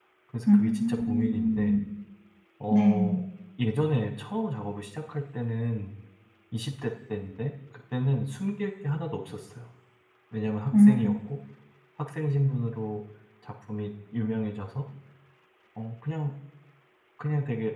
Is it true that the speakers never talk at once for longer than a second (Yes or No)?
No